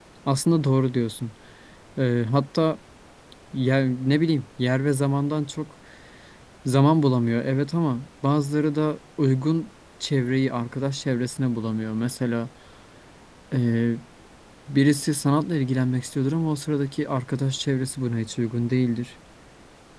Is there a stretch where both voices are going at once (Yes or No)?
No